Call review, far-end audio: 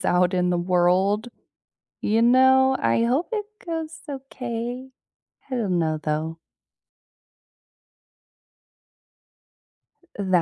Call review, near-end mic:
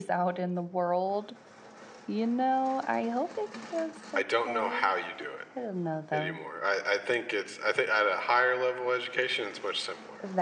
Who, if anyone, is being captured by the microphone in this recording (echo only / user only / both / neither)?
both